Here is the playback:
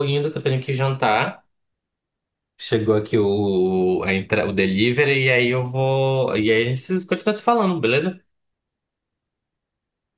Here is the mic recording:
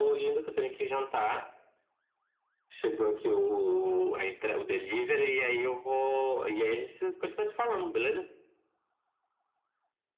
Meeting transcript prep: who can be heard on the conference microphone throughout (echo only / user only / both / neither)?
echo only